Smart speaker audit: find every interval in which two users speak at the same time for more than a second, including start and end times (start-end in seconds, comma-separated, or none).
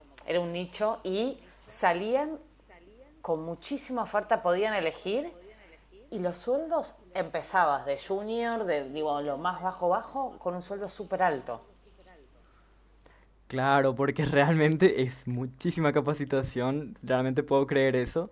none